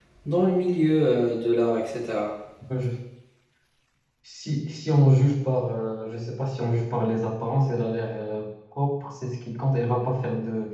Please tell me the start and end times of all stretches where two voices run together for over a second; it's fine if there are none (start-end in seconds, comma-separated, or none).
none